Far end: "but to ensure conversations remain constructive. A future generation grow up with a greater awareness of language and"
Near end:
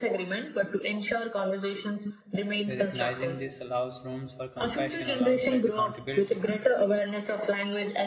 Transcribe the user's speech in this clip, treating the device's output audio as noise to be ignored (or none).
Recognizing this allows rooms for compassion alongside accountability.